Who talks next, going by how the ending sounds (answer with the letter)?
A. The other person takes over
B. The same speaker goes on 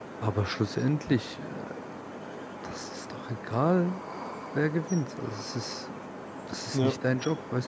B